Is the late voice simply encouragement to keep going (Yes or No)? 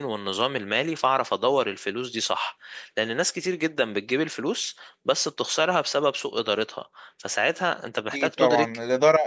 No